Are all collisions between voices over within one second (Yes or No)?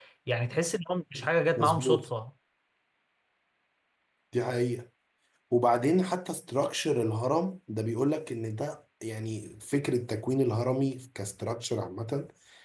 Yes